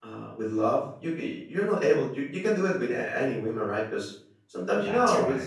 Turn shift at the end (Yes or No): No